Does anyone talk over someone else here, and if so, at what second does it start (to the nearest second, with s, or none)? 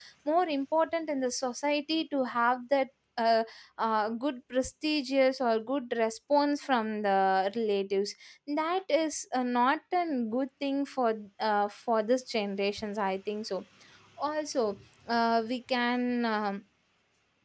none